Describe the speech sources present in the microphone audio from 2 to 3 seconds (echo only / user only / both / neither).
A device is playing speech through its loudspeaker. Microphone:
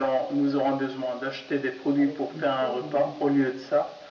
both